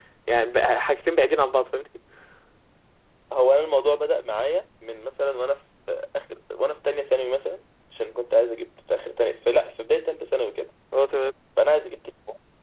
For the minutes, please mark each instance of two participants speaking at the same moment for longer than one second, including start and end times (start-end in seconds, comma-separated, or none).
none